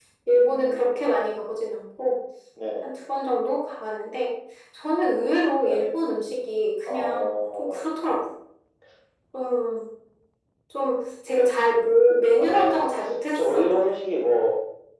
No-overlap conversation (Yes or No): No